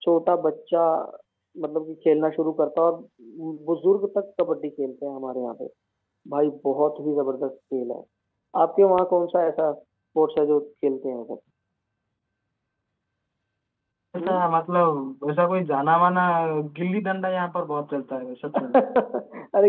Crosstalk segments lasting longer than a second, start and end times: none

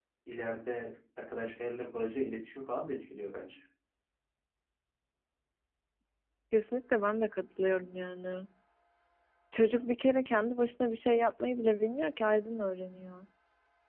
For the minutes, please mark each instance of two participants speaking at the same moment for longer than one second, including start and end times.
none

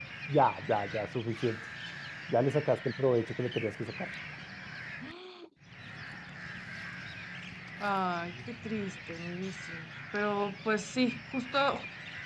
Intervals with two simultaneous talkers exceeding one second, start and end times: none

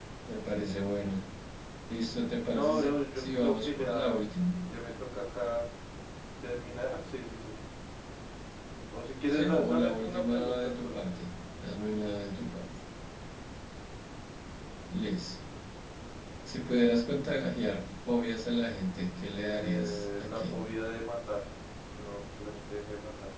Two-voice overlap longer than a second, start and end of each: 2.5-4.2, 9.3-11.1, 19.4-20.6

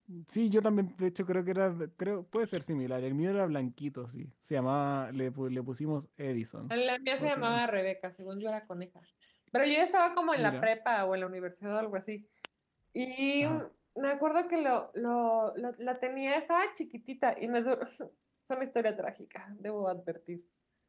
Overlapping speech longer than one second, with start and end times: none

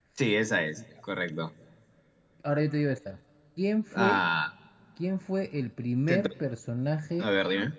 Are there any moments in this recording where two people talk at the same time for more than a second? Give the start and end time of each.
none

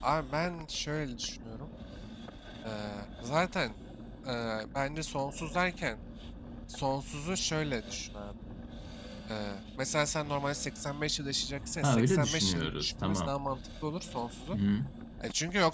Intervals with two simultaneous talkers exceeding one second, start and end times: 11.8-13.3

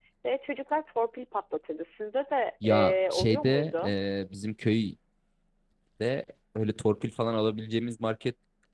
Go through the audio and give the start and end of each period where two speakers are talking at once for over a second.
2.6-3.9

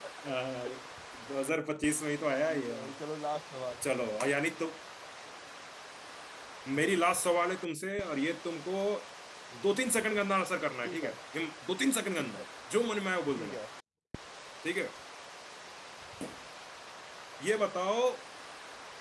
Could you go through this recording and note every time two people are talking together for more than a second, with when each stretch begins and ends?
none

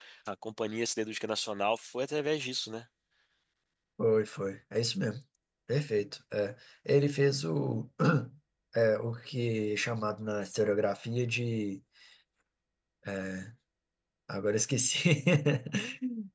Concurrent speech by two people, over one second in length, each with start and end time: none

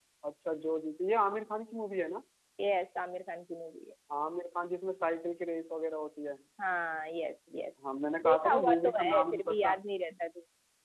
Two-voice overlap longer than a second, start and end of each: 8.2-9.7

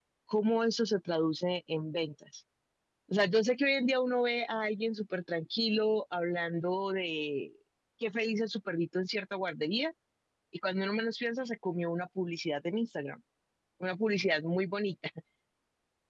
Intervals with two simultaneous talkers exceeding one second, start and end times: none

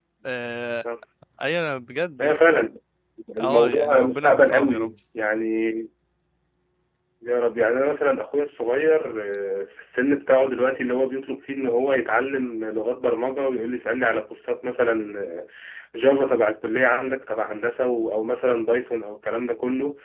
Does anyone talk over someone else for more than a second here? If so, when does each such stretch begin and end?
3.4-4.9

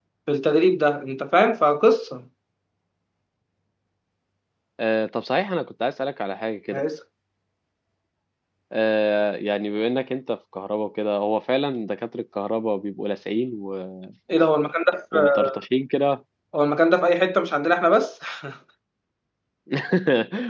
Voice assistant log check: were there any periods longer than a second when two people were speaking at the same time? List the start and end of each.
none

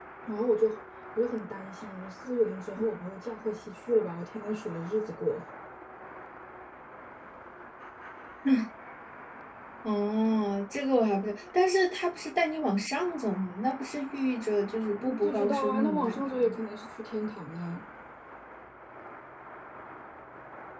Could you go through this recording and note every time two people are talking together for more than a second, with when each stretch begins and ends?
14.9-16.6

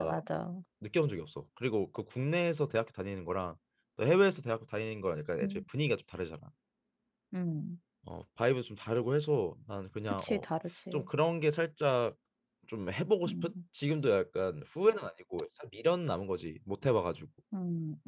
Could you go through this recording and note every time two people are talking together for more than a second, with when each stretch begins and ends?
none

